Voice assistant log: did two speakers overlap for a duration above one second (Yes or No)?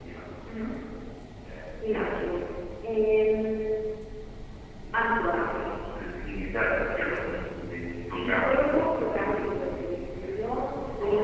Yes